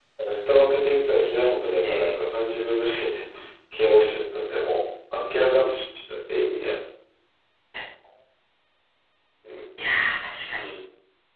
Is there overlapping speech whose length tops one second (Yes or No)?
No